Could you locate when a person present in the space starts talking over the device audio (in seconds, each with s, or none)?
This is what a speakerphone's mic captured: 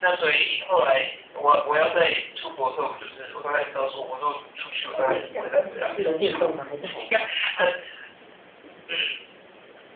4.9 s